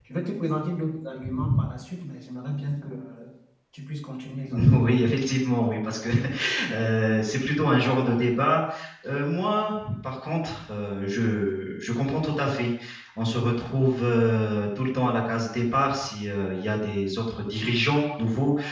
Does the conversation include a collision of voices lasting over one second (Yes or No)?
No